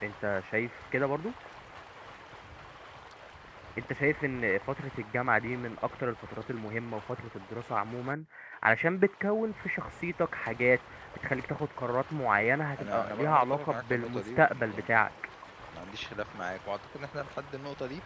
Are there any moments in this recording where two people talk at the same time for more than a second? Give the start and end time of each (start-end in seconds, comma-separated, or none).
12.8-15.1